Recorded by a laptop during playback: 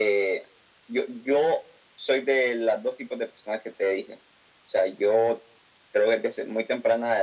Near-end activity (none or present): none